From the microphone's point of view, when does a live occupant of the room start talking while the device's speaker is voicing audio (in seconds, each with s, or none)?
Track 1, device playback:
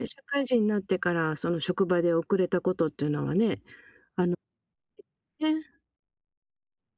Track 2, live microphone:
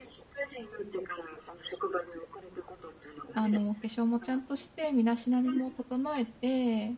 3.3 s